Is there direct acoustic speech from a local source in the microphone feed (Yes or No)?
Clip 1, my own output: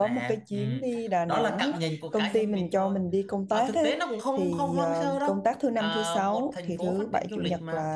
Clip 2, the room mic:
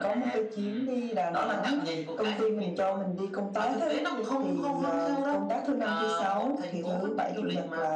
No